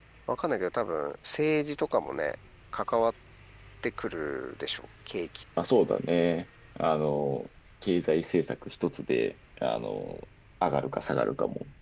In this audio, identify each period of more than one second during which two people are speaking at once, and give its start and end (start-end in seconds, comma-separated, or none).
none